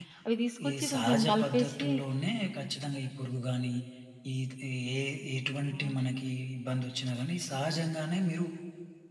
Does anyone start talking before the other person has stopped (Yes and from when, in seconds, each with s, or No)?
Yes, from 0.7 s